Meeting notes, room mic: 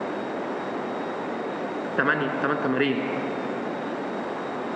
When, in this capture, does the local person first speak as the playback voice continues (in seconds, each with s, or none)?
2.0 s